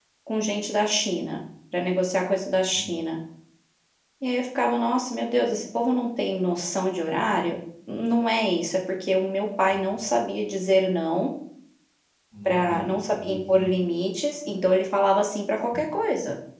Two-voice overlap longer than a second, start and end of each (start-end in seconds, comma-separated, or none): 12.4-13.7